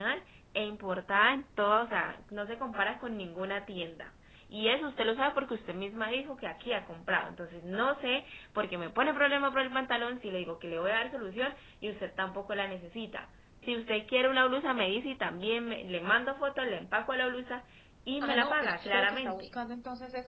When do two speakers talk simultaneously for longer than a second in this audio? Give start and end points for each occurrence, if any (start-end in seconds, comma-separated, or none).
18.2-19.5